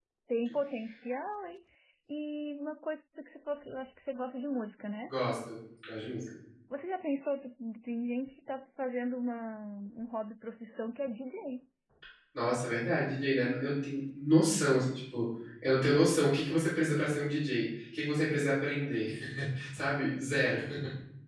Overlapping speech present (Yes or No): No